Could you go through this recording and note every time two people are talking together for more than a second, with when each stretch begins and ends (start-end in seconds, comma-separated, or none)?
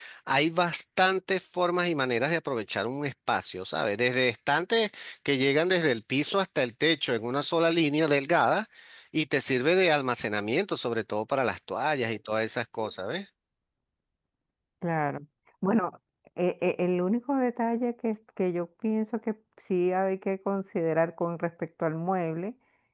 none